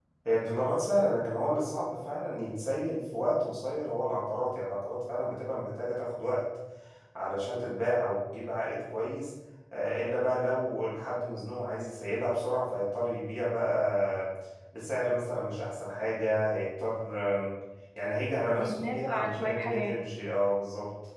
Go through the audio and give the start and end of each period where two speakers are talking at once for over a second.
18.6-20.0

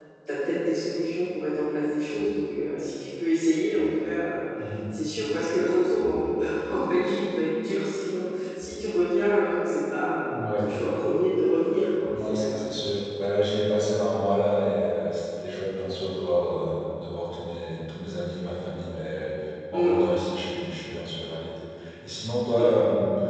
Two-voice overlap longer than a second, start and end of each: none

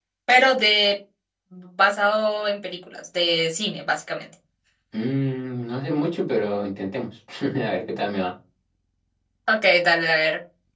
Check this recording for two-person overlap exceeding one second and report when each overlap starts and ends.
none

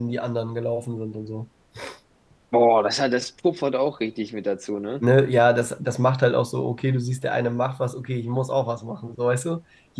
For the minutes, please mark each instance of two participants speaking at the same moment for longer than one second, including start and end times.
none

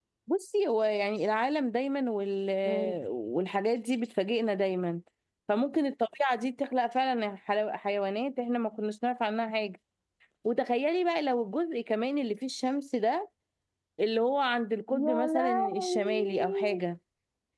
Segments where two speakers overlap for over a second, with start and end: 15.0-16.8

